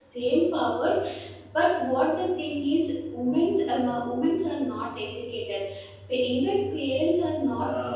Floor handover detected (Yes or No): No